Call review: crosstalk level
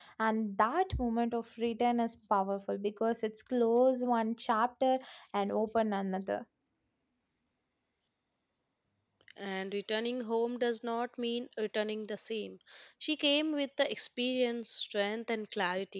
none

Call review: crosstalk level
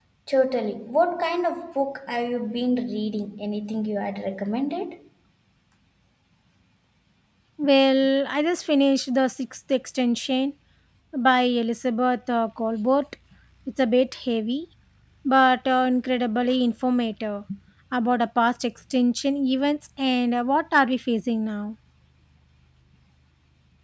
none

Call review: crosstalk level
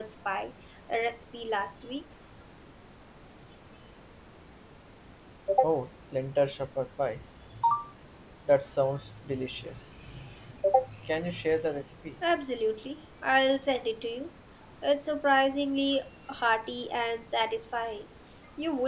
none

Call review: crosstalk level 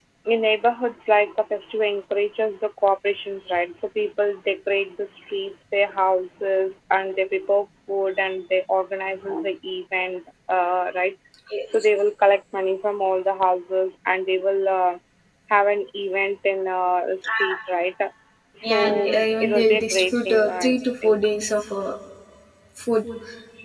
present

